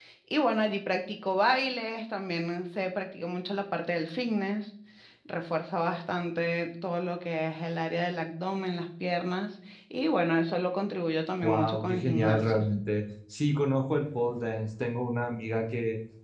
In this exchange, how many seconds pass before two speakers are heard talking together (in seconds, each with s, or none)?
11.4 s